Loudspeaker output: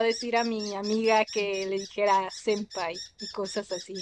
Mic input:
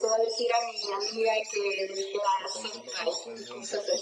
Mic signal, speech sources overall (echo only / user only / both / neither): both